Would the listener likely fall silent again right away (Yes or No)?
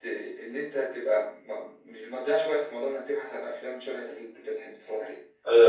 No